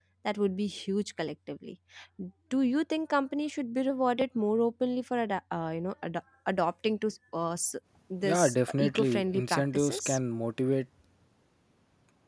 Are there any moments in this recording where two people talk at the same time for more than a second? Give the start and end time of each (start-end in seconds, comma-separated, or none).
8.2-10.2